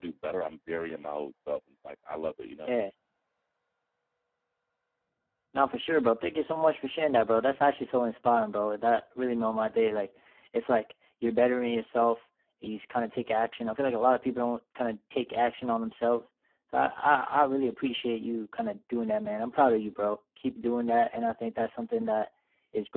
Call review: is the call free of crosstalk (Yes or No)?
Yes